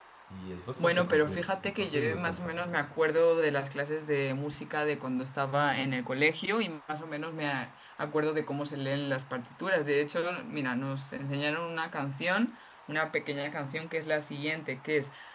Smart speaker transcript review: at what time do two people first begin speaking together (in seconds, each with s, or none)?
0.8 s